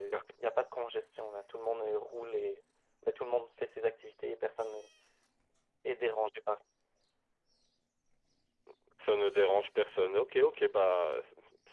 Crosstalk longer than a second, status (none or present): none